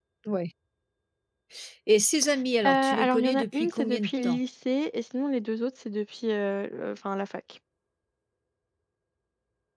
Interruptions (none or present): present